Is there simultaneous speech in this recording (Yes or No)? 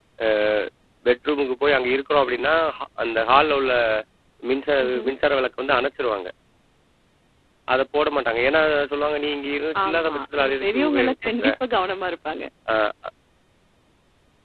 Yes